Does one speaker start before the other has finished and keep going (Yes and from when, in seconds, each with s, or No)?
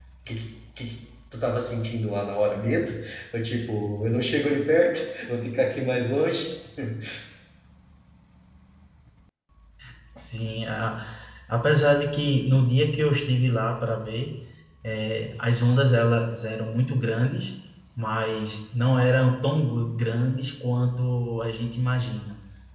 No